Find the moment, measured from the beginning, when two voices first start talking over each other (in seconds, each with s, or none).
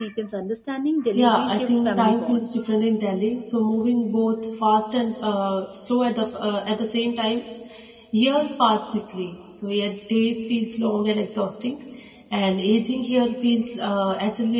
1.1 s